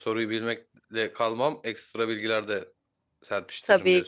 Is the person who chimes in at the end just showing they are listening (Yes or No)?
No